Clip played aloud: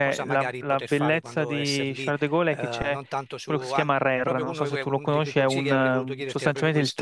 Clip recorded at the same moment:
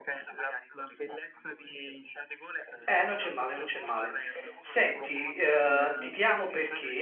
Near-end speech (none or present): present